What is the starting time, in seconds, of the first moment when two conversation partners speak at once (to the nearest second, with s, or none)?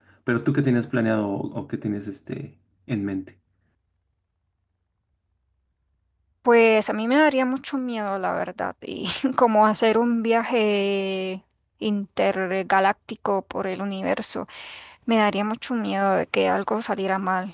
none